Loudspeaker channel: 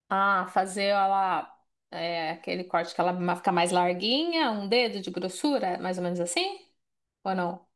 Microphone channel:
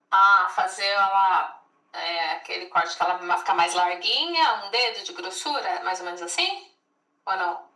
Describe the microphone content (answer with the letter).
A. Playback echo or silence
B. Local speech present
A